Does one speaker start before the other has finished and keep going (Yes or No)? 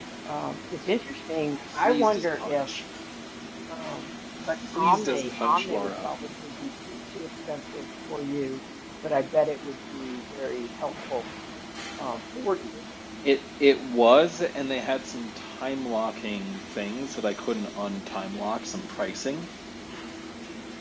Yes